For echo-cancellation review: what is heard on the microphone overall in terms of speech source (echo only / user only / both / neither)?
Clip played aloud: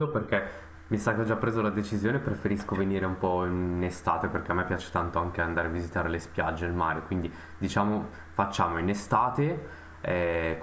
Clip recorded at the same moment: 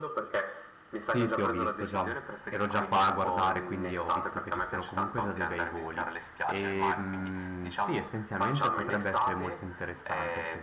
both